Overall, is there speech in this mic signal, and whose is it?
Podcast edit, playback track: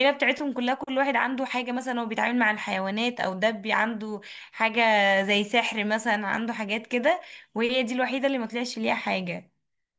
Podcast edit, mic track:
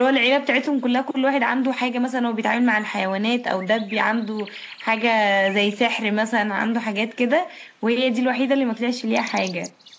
echo only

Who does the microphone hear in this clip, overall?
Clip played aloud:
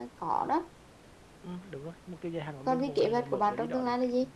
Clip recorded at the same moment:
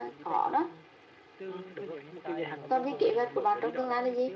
both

